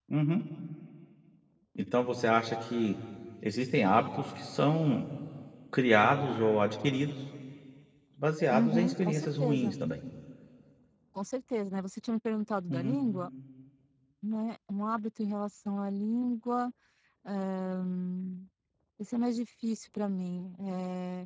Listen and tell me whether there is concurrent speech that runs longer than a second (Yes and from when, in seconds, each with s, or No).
Yes, from 8.5 s